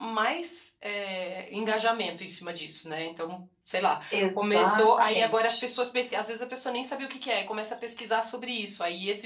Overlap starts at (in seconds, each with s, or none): 4.1 s